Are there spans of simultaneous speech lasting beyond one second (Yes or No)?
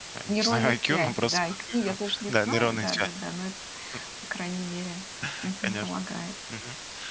Yes